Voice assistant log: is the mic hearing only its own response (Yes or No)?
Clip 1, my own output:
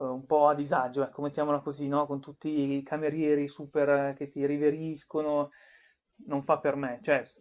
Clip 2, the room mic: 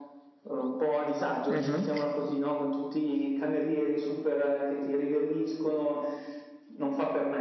No